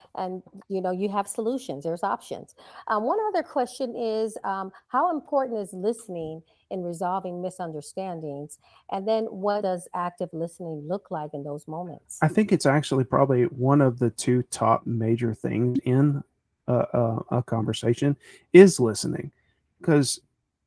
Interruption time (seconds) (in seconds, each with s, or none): none